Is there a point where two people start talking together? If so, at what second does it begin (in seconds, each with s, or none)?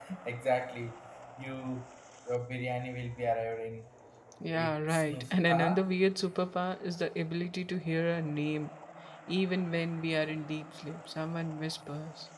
4.5 s